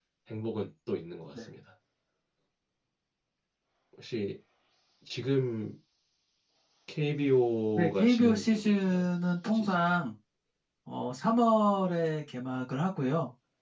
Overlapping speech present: Yes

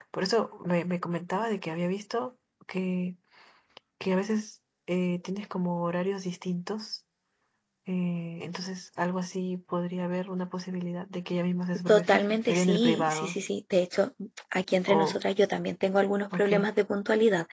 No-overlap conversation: No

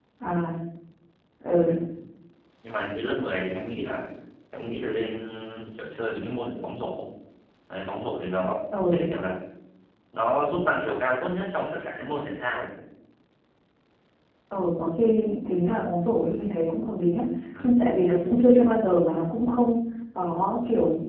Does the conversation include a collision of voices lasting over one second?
No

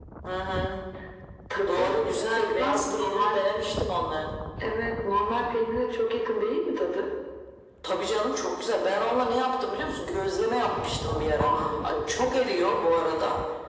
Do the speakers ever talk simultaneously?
Yes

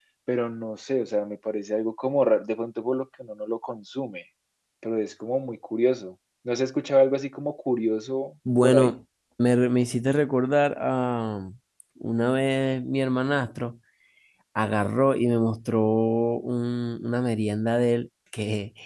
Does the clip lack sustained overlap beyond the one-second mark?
Yes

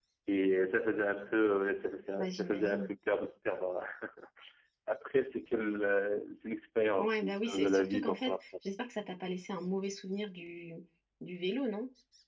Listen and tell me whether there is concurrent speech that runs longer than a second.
Yes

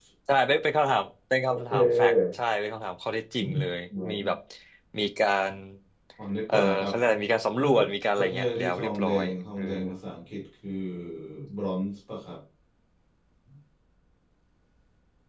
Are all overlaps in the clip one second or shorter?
No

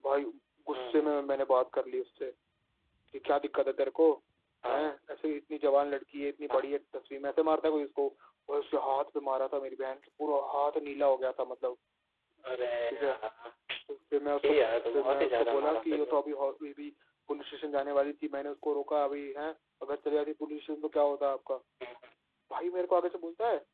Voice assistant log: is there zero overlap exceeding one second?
No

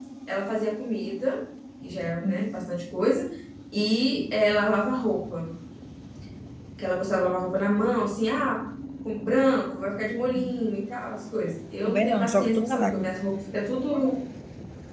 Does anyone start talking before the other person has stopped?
Yes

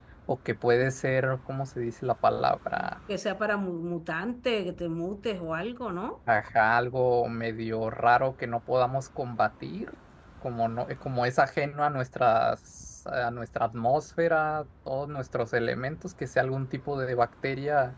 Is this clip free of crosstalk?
Yes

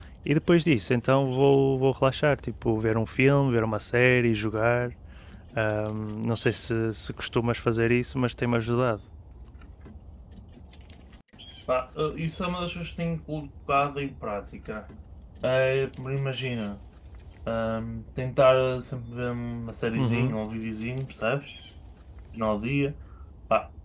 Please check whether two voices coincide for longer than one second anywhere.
No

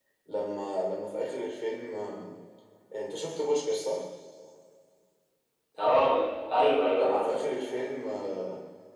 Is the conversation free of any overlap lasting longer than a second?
Yes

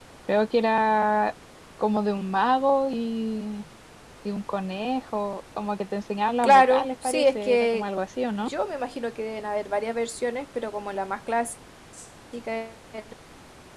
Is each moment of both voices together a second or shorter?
No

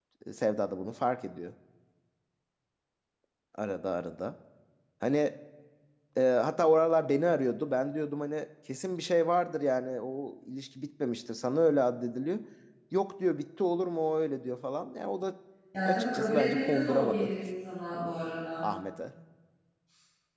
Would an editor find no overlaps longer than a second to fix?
No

